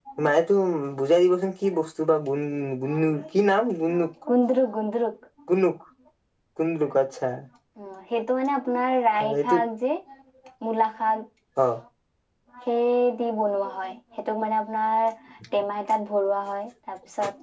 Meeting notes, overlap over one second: none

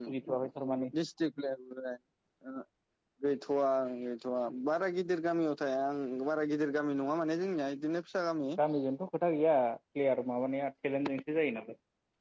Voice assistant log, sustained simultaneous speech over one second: none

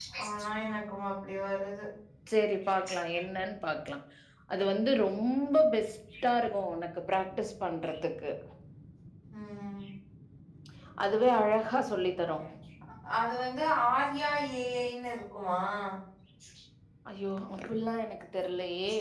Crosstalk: none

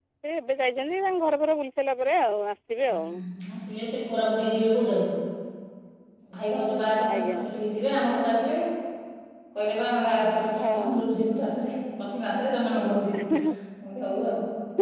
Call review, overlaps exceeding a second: none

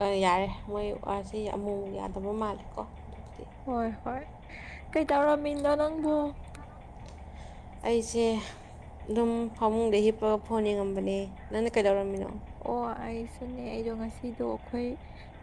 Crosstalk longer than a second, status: none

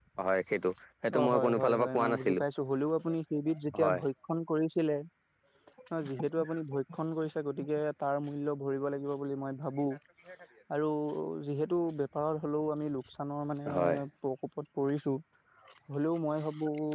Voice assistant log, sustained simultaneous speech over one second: present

